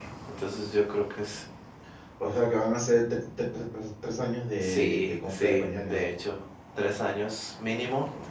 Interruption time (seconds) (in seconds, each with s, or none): 4.6 s